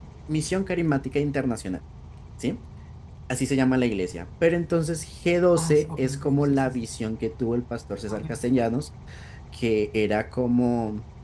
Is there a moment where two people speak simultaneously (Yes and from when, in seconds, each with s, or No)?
Yes, from 5.6 s